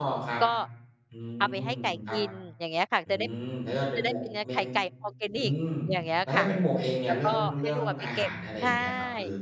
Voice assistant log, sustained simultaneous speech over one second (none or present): present